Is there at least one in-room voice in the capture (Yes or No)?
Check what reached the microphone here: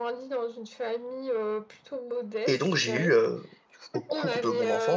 Yes